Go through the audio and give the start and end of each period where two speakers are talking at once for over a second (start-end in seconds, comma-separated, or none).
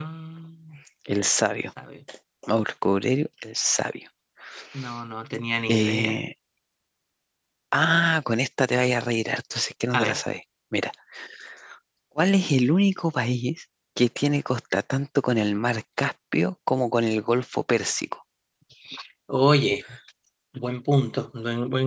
none